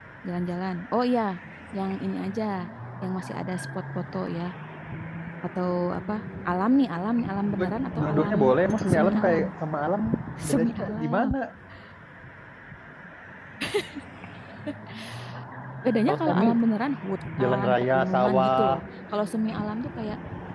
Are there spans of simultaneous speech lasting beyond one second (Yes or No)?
Yes